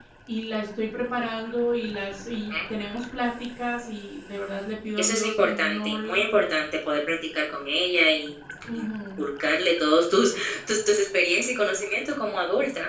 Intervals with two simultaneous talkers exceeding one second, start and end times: 5.0-6.2

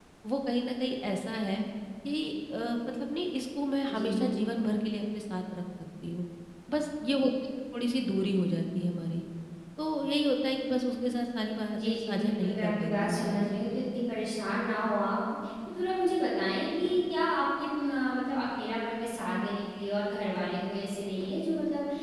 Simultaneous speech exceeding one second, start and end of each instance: 11.8-13.5

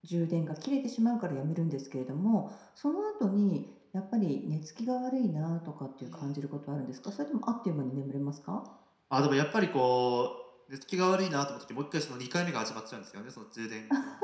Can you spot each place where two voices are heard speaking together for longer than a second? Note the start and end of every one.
none

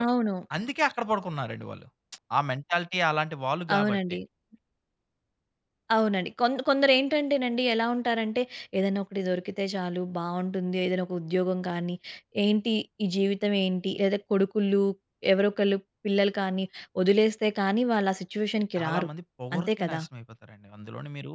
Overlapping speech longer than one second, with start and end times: none

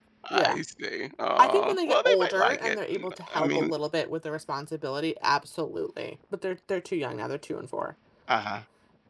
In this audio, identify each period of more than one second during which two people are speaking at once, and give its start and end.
1.4-3.7

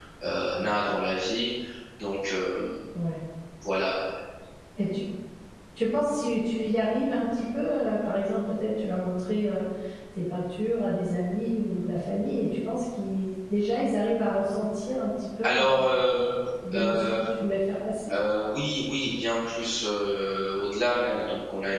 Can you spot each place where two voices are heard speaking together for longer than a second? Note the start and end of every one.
none

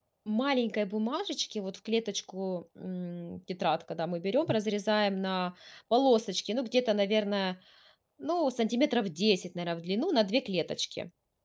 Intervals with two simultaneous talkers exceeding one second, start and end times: none

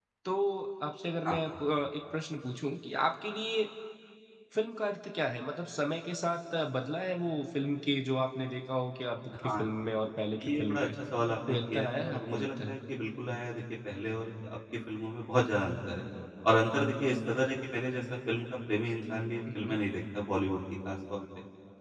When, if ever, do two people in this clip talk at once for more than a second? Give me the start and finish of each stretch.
11.5-12.8

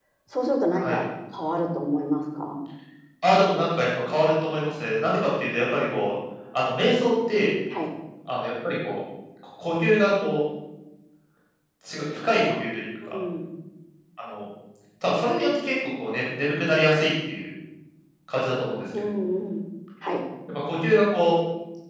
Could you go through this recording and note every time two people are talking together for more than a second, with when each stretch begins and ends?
none

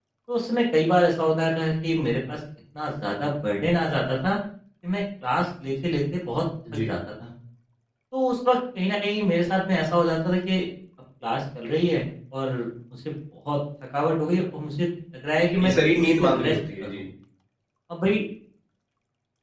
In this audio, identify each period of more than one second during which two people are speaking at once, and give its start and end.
15.6-17.0

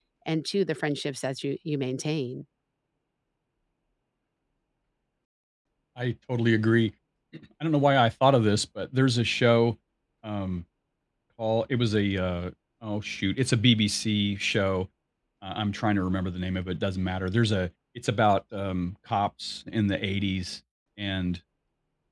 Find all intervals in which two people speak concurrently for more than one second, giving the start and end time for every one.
none

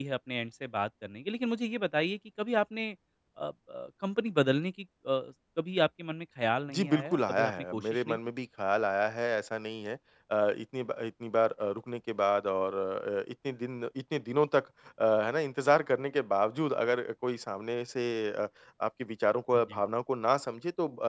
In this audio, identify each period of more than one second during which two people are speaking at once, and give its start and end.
6.7-8.2

